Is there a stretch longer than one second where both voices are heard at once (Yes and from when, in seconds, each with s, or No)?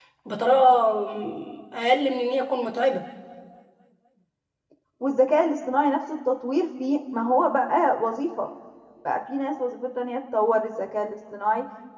No